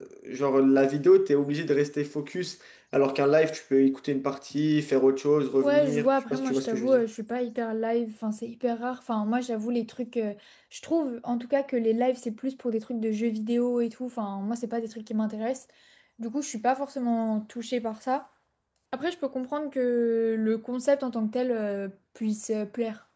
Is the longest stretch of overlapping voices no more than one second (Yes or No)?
No